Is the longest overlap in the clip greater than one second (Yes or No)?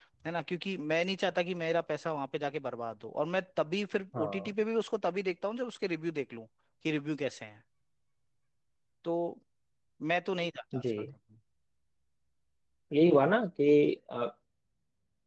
No